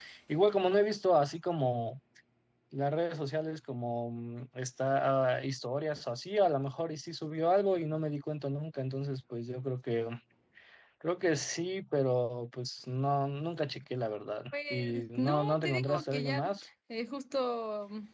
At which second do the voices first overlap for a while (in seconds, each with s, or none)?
14.5 s